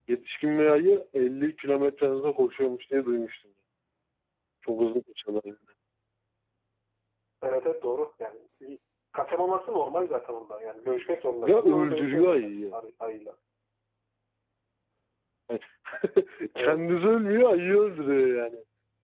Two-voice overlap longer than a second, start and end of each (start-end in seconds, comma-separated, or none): 11.4-12.7